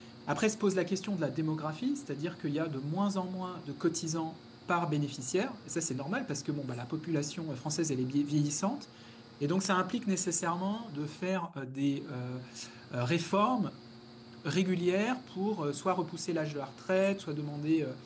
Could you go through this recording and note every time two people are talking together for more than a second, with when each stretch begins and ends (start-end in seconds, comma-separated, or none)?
none